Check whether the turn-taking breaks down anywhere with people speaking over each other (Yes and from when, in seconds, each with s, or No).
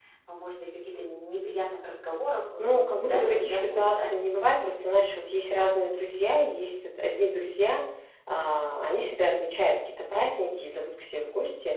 Yes, from 2.6 s